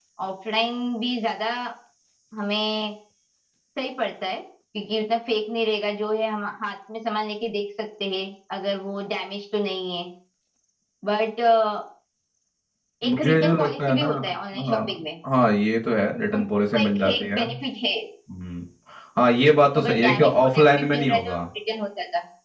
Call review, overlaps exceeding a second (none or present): present